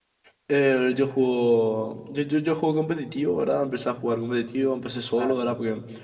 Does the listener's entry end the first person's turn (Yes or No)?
No